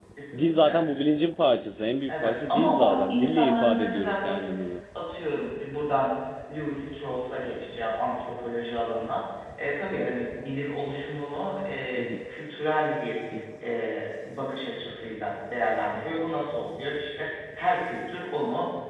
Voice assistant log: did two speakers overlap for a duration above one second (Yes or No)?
Yes